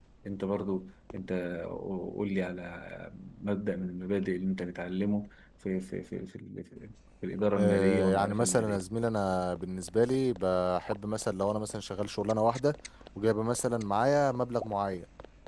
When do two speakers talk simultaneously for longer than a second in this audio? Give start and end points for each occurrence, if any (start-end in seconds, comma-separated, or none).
7.6-8.8